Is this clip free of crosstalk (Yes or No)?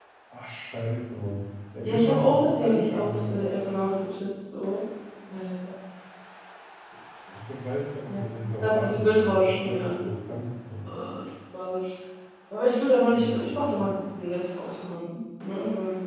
No